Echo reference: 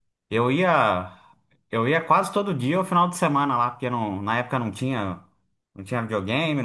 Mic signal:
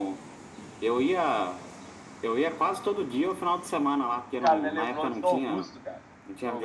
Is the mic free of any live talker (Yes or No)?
No